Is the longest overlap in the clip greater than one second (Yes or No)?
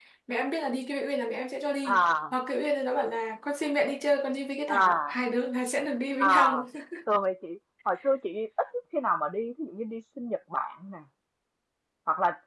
No